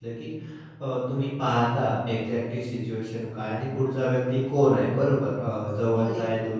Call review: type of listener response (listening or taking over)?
listening